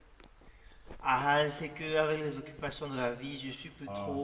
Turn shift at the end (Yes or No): No